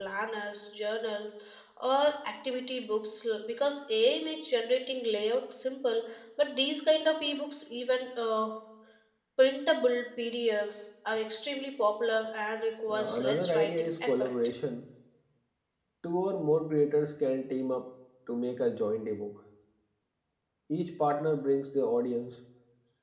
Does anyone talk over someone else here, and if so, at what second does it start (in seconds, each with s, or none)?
12.9 s